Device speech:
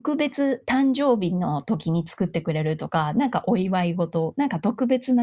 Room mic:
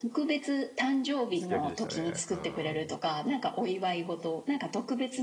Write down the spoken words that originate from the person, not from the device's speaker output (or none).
すき焼きでしたね、うん。